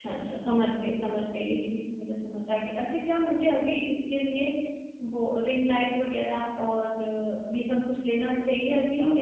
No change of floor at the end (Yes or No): No